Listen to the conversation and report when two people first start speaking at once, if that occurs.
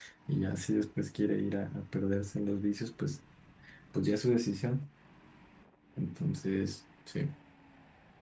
none

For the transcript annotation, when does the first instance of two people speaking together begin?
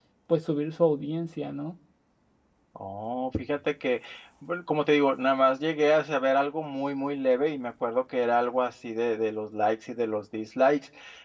none

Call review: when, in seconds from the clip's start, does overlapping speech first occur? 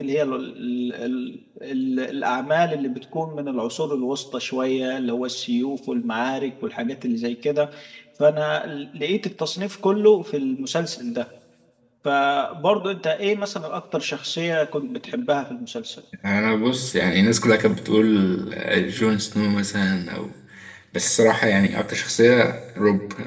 none

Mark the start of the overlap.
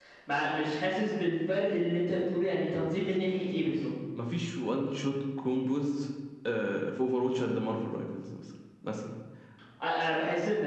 none

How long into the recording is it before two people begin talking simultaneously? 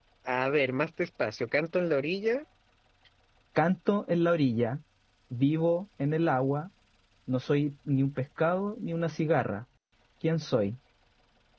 none

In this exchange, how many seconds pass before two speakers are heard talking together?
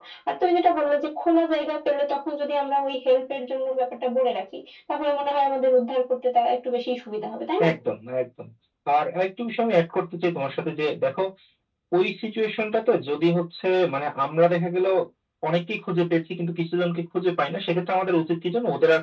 none

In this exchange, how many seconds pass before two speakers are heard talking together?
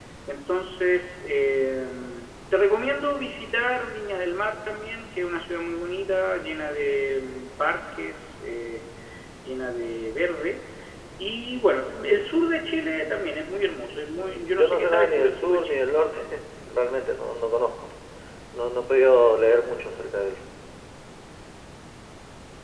14.1 s

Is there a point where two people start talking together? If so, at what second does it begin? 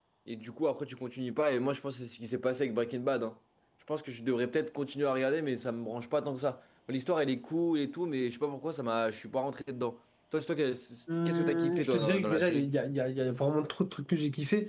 11.1 s

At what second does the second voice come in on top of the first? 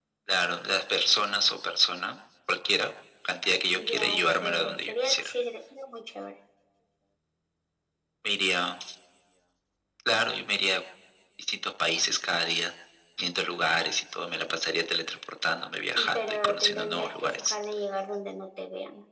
3.8 s

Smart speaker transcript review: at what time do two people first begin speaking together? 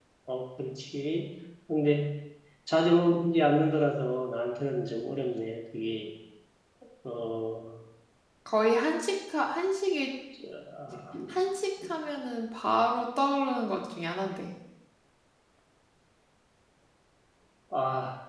none

